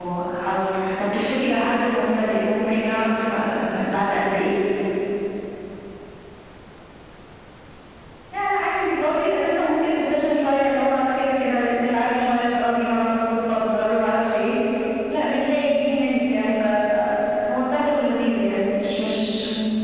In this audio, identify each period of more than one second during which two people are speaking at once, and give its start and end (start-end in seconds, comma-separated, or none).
none